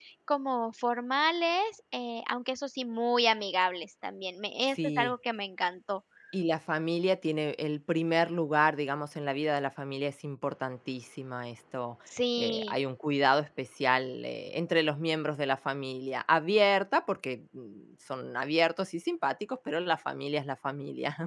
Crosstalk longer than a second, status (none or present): none